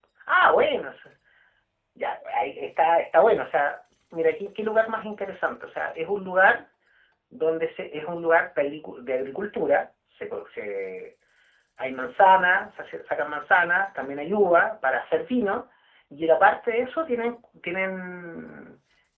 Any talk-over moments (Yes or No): No